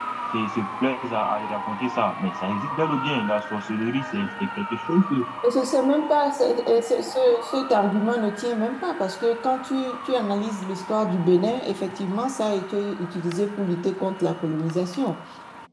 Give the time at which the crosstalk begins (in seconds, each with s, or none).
none